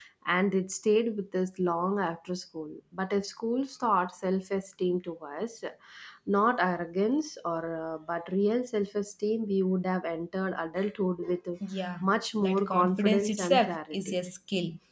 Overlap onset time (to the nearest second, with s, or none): 12 s